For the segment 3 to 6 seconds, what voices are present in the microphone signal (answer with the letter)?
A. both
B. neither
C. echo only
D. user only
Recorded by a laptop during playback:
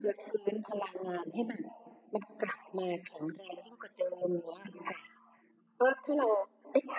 C